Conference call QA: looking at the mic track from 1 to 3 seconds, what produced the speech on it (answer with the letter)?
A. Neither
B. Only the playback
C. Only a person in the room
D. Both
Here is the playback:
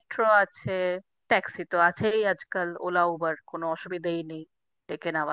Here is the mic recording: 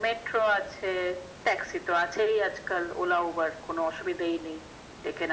B